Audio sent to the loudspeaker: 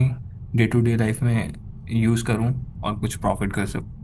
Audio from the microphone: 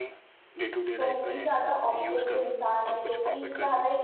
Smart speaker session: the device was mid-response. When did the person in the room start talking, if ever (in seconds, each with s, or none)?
1.0 s